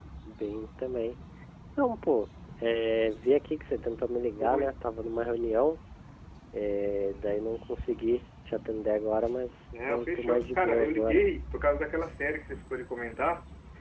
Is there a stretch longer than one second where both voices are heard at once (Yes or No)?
Yes